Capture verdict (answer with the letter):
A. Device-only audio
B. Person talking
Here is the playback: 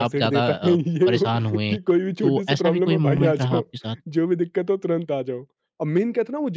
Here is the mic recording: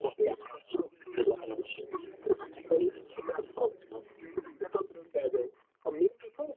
B